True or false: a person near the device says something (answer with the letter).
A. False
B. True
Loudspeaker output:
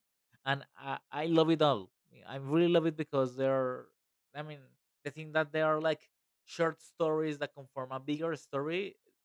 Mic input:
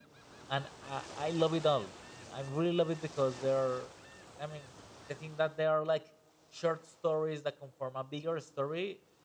A